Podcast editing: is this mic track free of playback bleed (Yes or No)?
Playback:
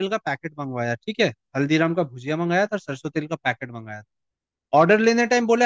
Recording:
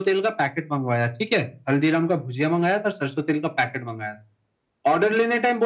No